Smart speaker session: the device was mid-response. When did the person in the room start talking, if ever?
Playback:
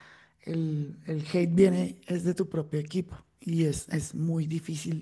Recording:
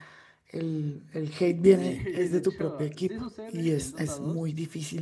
2 s

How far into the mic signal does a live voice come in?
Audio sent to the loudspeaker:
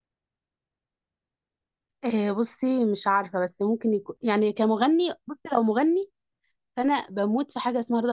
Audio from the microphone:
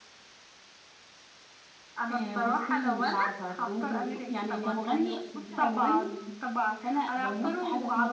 2 s

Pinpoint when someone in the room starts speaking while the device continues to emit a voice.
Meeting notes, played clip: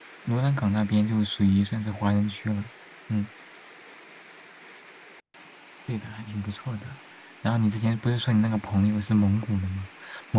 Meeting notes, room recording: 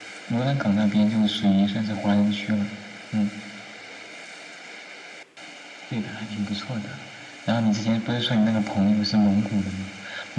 none

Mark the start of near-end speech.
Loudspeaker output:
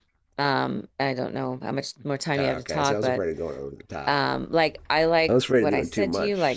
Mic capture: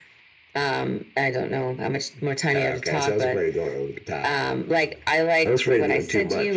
none

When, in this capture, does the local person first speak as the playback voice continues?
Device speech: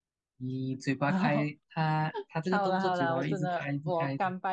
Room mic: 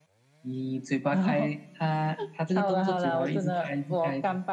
none

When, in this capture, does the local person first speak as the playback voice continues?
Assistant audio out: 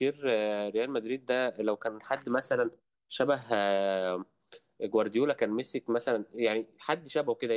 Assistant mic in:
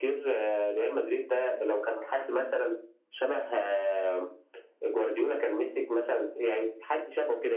none

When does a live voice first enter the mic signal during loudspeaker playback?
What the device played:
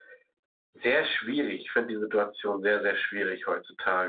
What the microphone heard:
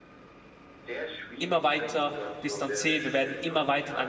1 s

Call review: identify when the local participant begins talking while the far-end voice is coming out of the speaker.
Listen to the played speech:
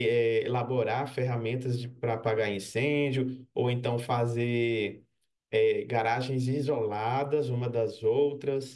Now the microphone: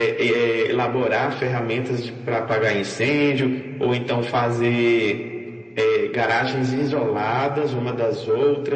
none

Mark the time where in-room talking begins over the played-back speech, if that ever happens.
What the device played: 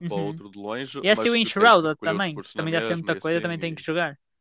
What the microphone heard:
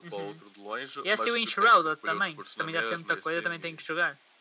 none

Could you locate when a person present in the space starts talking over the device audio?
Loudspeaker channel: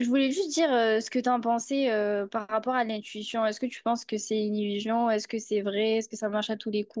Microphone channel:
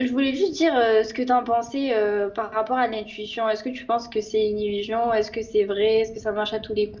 none

